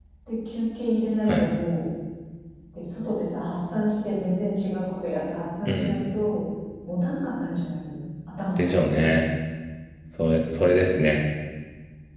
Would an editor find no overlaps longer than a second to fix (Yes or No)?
Yes